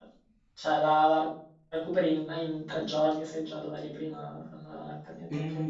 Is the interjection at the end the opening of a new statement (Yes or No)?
Yes